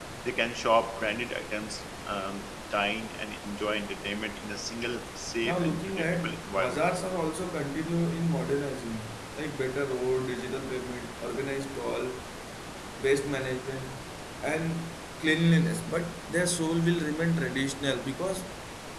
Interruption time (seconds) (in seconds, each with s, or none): 5.4 s